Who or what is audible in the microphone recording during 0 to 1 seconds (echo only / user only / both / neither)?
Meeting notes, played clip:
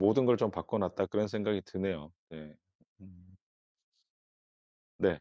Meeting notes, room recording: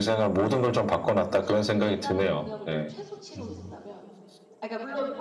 echo only